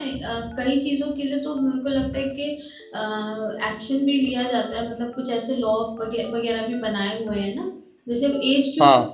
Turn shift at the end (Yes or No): No